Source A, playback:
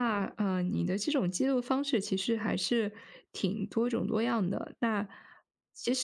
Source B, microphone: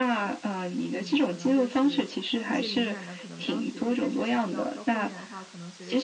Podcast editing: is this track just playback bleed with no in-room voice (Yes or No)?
No